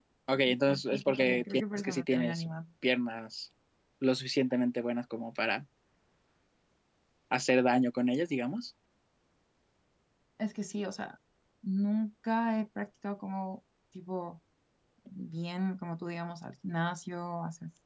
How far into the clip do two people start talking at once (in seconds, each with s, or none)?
0.9 s